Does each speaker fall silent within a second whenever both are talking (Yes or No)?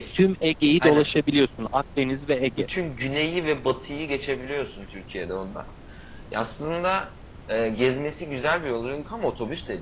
Yes